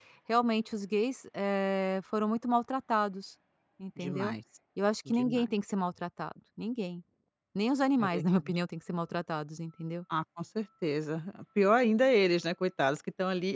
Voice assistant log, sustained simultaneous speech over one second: none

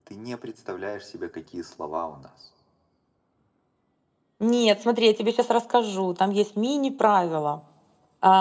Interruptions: none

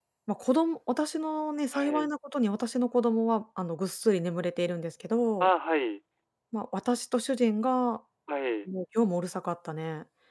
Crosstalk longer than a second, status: none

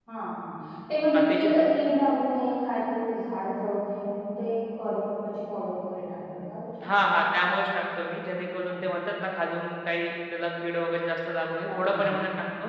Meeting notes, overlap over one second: none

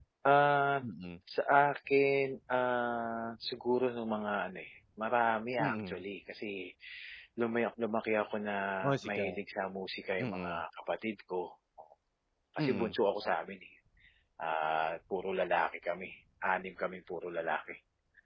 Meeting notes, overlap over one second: none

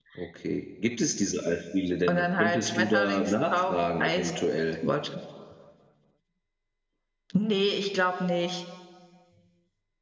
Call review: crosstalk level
present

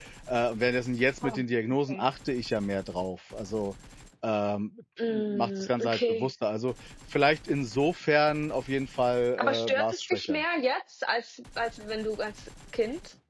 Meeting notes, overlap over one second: present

